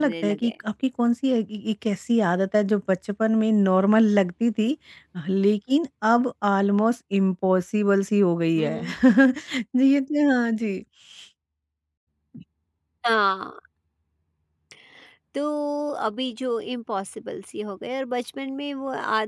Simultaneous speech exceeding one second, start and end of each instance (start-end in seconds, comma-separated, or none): none